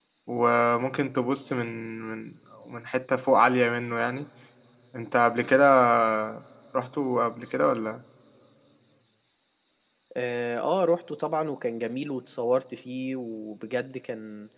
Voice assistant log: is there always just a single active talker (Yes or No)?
Yes